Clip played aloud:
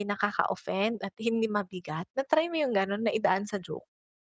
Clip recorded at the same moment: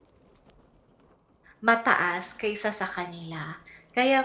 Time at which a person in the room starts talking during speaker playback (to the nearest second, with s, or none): 2 s